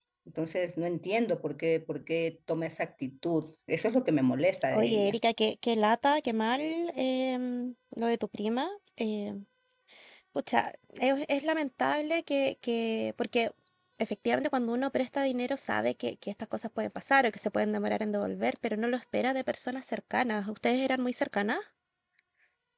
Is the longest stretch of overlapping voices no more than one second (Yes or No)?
Yes